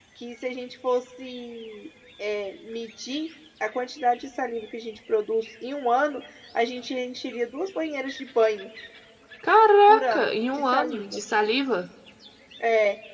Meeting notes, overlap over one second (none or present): present